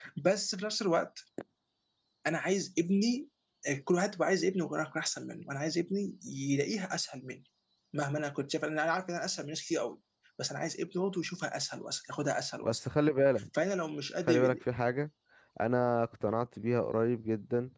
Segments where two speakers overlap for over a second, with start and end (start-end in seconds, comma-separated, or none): none